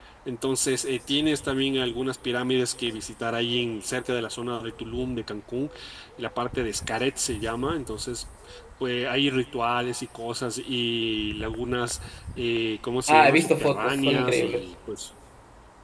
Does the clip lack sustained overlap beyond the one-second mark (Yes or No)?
No